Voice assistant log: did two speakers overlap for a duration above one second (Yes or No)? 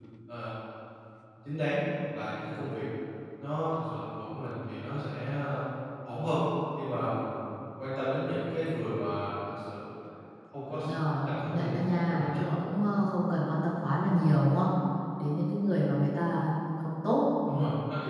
Yes